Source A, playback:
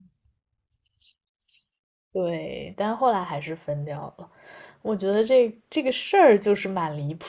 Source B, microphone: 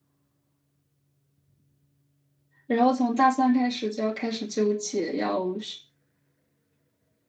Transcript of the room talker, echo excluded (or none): 然后从大三开始就要开始纠结，要是